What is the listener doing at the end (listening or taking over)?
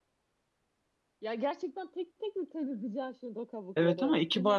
taking over